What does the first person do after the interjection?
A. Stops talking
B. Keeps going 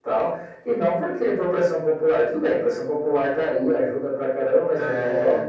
B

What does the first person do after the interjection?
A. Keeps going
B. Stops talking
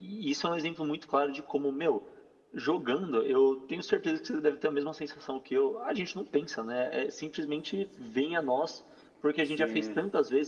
A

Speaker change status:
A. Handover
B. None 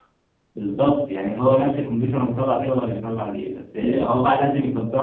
B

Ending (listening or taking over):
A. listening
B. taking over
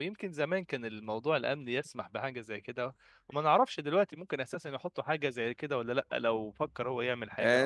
B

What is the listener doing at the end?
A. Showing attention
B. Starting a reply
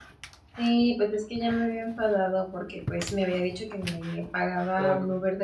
A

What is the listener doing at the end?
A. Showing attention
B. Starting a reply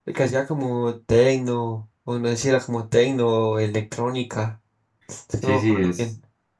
B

